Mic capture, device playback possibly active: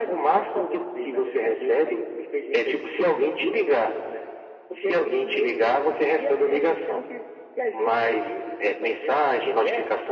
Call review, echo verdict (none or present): present